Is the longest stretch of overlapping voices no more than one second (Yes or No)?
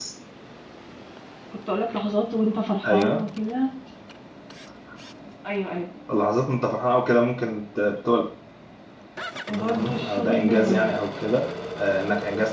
No